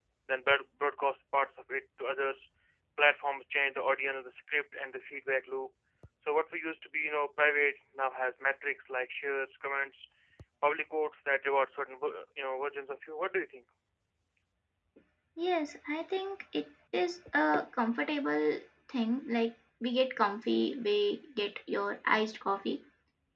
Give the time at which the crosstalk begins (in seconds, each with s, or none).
none